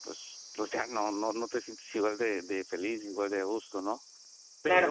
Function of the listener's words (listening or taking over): taking over